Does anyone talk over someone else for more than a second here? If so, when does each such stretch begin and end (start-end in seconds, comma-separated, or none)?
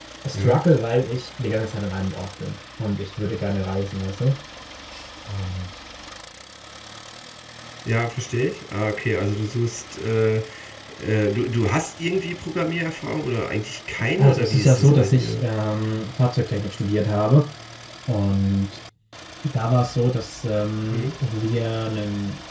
14.2-15.4